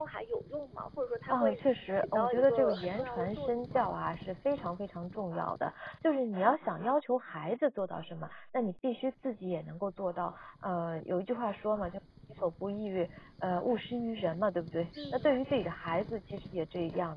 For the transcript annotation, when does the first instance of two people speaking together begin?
1.3 s

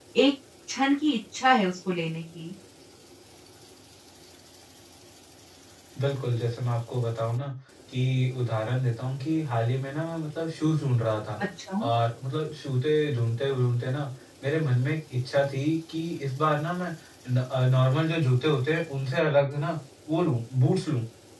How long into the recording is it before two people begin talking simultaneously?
none

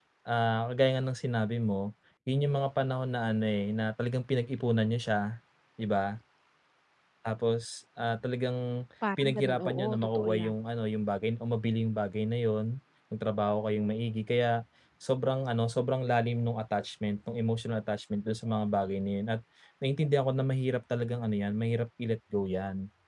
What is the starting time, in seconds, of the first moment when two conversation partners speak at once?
9.0 s

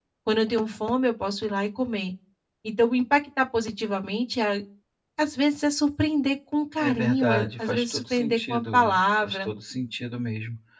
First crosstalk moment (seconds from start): 6.8 s

